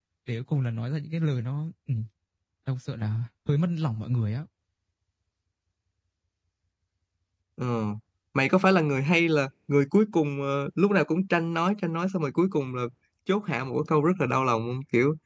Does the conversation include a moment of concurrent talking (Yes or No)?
No